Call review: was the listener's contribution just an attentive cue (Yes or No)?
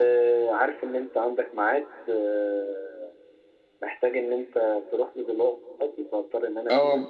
No